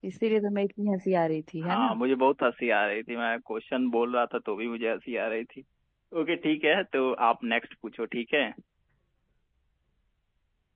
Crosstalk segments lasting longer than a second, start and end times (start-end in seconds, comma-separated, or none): none